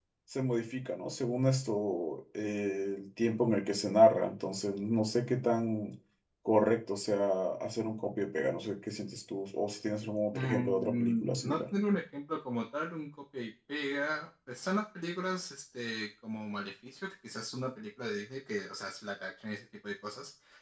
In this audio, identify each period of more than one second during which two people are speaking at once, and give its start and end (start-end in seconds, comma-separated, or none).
10.3-11.6